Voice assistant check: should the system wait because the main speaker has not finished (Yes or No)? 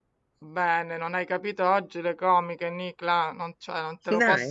Yes